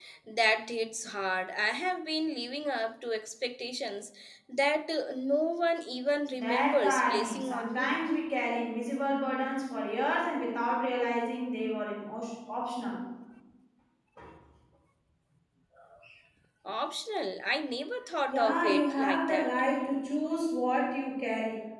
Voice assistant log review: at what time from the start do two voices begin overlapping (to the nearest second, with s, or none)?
6 s